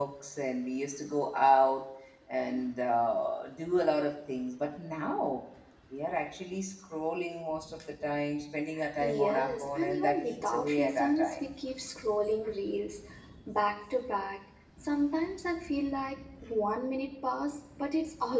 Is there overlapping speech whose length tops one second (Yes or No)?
Yes